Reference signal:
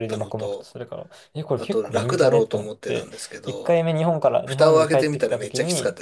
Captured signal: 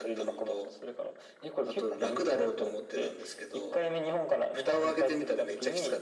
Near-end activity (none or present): none